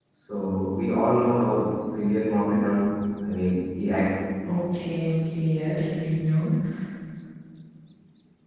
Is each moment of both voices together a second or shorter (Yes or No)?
Yes